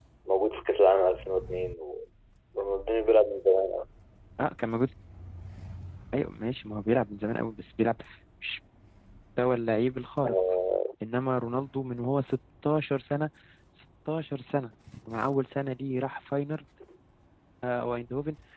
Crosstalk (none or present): none